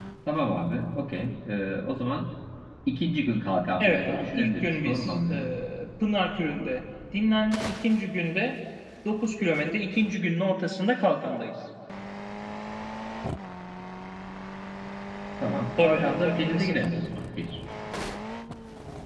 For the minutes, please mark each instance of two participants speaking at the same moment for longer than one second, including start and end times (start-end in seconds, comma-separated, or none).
3.8-5.5, 15.8-17.0